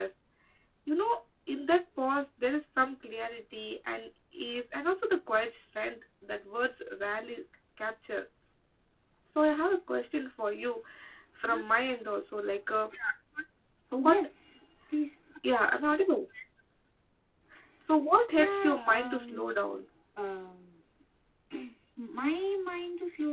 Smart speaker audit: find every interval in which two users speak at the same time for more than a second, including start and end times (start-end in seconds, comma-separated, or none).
18.3-19.8